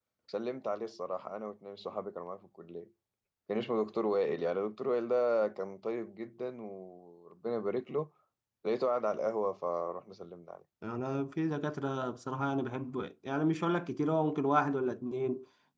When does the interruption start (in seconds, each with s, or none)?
none